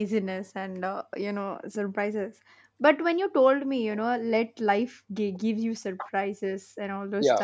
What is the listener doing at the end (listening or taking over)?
listening